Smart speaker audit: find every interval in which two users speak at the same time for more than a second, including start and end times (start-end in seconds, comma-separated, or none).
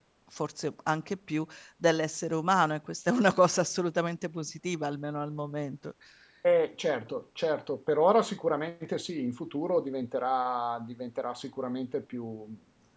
none